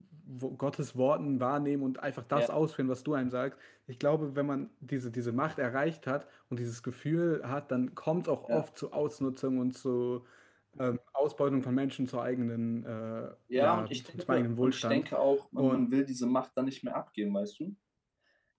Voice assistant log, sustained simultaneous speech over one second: present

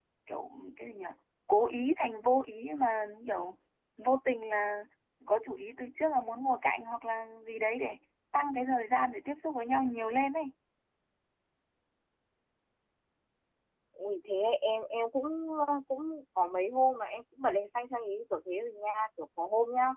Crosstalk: none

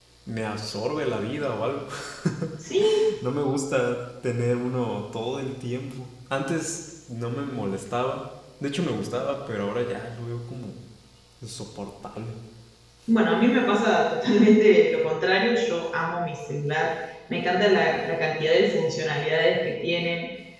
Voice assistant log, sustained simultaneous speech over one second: none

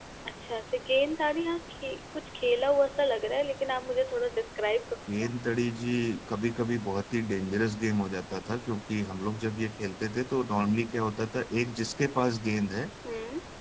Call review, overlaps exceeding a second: none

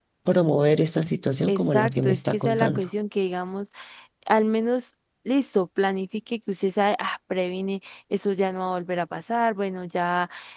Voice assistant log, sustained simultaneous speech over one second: present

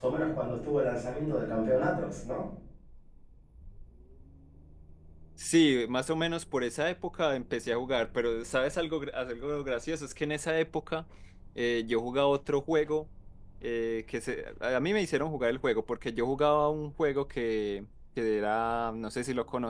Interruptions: none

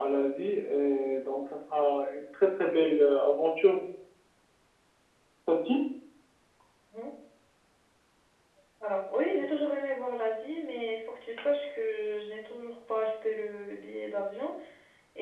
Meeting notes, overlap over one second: none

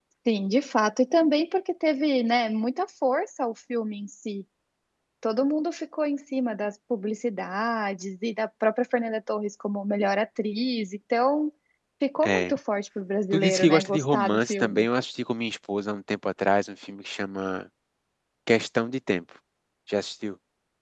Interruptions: present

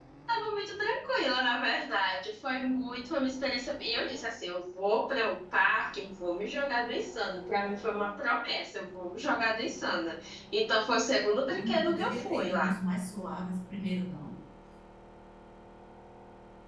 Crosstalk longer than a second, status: present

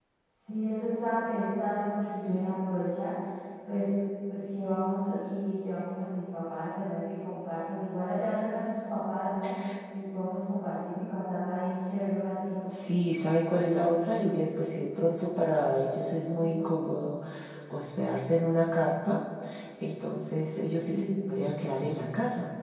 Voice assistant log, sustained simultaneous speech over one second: none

